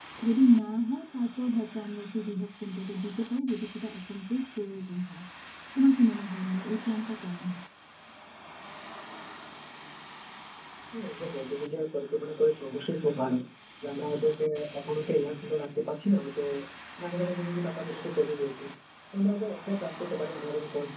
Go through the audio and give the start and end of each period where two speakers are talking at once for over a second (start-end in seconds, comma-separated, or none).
none